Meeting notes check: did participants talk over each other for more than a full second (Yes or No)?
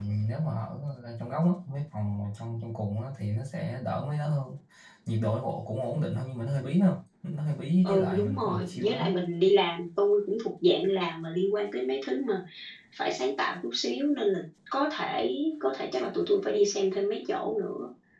Yes